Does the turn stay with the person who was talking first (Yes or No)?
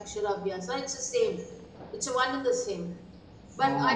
Yes